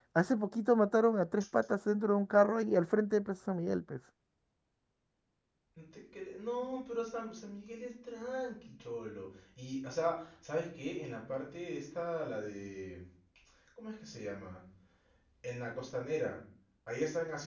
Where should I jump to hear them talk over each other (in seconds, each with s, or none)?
none